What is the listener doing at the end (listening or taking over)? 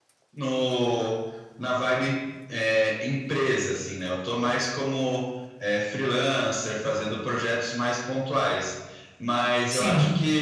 listening